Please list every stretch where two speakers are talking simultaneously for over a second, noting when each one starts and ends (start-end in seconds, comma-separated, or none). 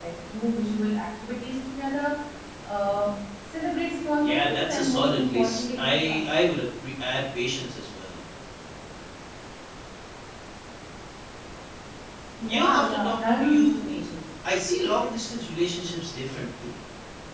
4.2-6.3, 12.5-13.9